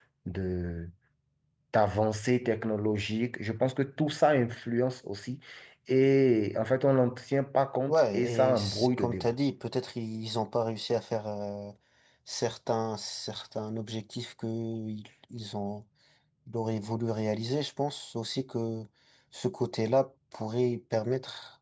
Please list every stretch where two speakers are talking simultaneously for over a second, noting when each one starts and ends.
7.9-9.3

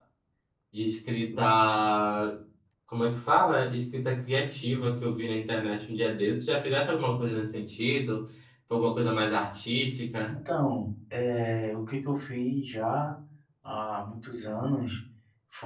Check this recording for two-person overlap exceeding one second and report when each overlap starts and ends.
none

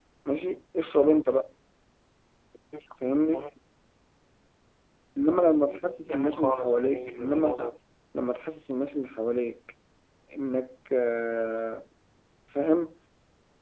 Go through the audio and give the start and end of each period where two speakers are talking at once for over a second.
6.1-7.7

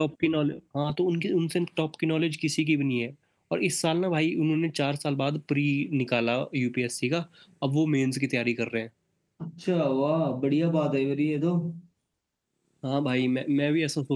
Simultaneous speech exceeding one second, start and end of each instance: none

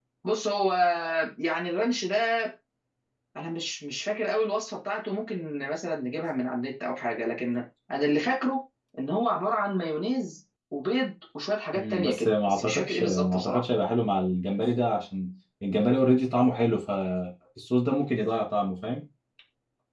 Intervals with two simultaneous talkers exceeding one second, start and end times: 11.8-13.6

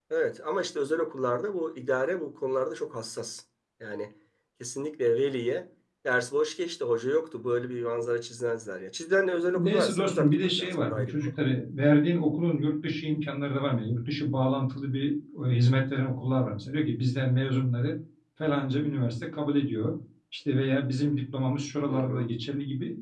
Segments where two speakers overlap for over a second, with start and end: 9.5-11.1

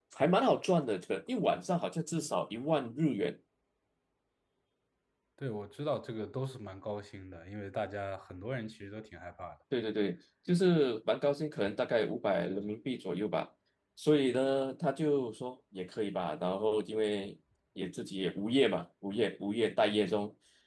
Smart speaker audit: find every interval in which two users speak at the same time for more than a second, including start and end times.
none

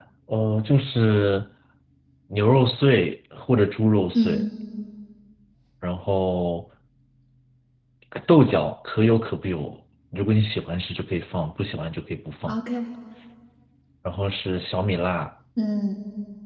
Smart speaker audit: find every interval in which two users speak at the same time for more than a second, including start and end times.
none

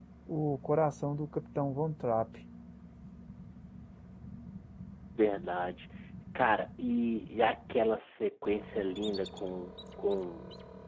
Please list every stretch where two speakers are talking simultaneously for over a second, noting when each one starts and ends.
none

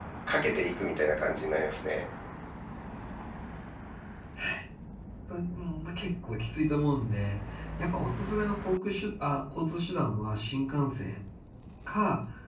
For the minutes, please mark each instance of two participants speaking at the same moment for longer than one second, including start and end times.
none

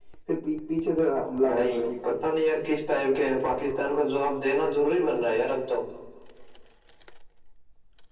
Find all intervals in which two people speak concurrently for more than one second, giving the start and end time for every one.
none

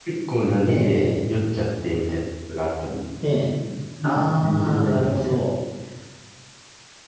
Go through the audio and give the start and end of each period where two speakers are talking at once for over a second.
4.0-5.4

